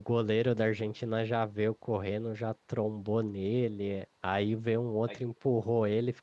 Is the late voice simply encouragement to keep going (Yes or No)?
Yes